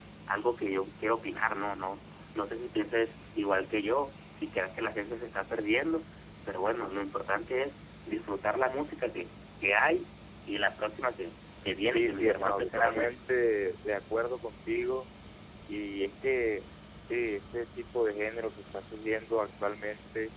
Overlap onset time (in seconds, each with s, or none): 11.9 s